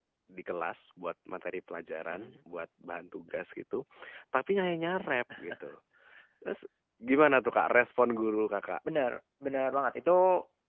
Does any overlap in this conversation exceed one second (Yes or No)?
No